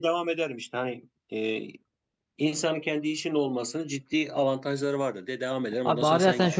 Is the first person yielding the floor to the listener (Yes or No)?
Yes